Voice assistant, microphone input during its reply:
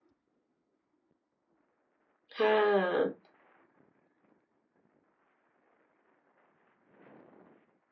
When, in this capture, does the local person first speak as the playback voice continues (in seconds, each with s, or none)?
2.3 s